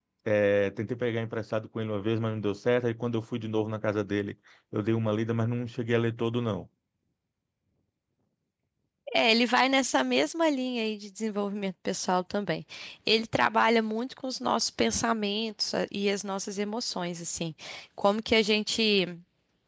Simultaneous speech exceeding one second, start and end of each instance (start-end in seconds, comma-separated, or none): none